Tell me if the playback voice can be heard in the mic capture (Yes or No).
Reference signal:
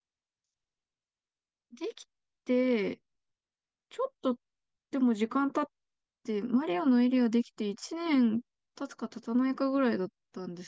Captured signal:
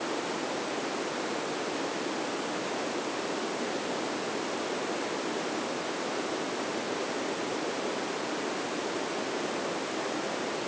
No